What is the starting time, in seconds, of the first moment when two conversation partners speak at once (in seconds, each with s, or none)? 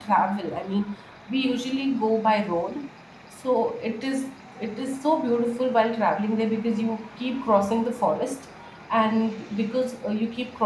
none